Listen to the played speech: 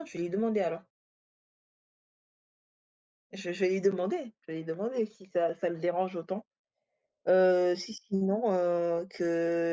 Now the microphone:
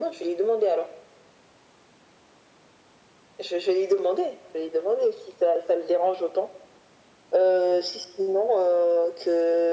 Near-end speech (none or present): none